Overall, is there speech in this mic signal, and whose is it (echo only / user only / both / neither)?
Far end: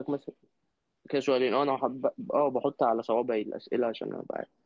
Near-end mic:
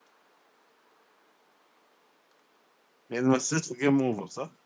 user only